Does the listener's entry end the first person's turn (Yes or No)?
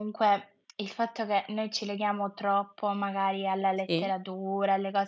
No